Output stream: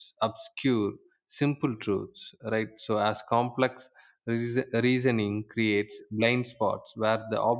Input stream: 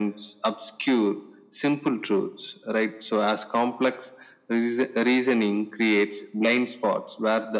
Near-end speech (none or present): none